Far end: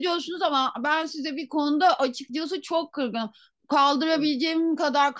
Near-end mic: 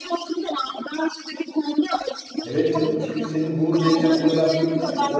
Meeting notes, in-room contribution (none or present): present